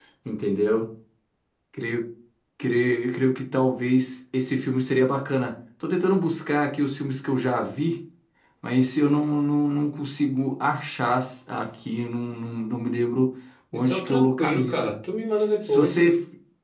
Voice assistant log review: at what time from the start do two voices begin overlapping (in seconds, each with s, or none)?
13.7 s